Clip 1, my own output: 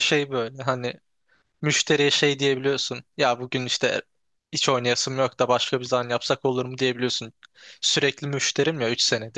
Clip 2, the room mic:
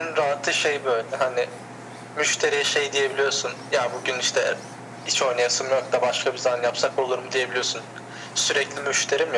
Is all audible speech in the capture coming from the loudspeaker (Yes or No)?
Yes